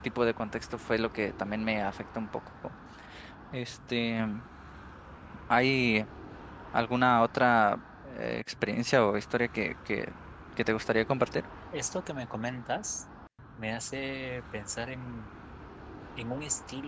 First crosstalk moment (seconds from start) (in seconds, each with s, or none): none